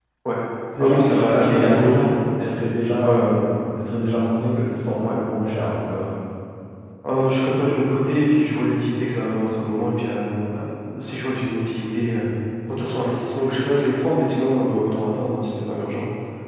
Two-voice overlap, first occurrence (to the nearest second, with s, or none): 1 s